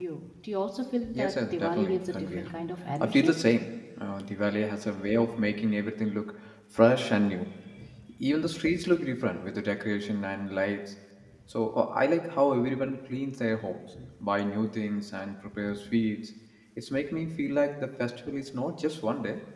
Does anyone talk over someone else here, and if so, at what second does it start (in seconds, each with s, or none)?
1.1 s